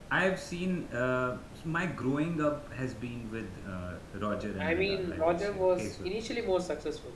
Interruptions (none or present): present